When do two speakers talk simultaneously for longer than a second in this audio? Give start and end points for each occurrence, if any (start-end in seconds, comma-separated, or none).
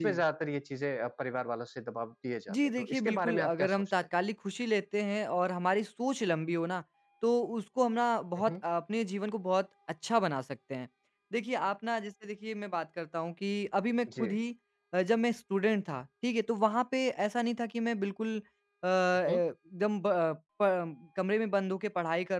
2.5-3.9